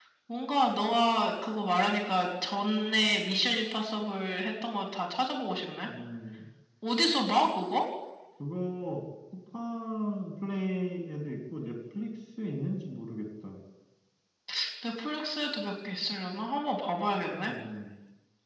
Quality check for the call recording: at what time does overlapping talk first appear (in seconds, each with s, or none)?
none